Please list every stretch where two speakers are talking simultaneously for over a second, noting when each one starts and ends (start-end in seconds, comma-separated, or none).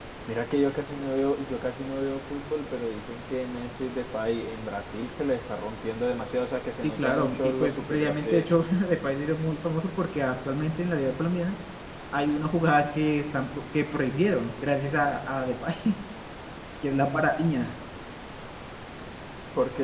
6.8-8.5